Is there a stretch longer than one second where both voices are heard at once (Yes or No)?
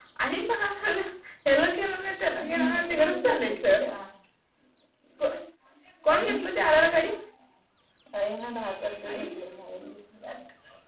Yes